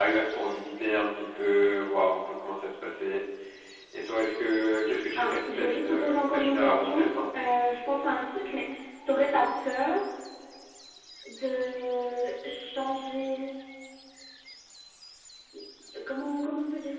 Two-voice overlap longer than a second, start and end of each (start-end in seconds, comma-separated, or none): 5.2-7.0